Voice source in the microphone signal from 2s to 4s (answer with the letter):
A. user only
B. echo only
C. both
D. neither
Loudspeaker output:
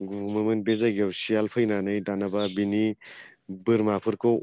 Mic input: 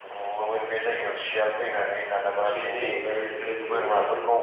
C